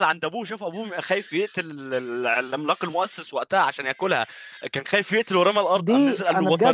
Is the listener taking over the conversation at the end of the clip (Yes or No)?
Yes